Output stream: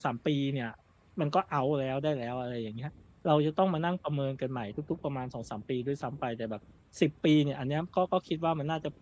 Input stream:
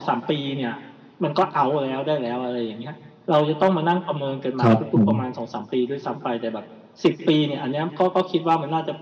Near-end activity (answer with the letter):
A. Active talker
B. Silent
A